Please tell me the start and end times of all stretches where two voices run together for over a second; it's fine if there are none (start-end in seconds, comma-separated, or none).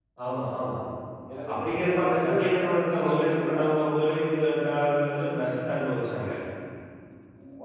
1.6-3.7